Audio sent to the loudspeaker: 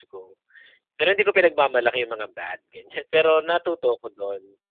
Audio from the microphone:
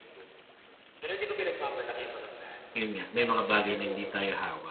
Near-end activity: present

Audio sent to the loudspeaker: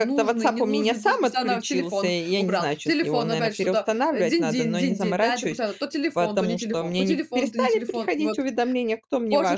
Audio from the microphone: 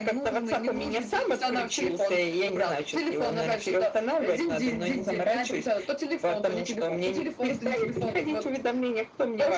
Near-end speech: none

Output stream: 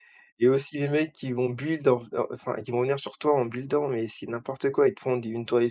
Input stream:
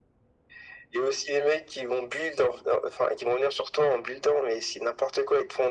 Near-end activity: none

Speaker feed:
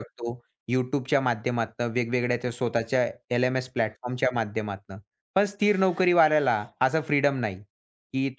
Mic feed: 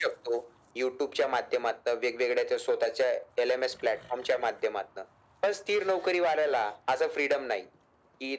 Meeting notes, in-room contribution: none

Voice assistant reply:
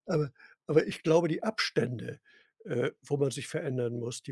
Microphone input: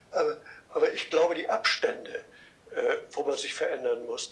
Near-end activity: none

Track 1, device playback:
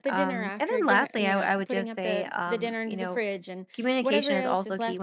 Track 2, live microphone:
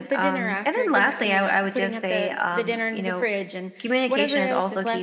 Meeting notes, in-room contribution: none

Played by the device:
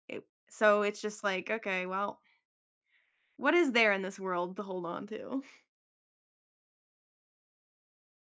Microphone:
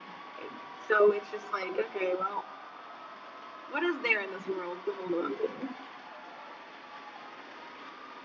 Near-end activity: none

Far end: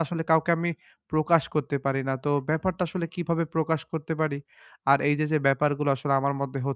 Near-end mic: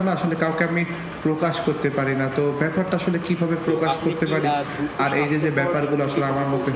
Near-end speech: present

